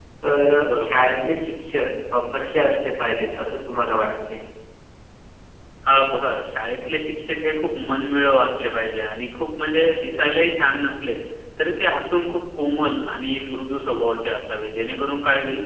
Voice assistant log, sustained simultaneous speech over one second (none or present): none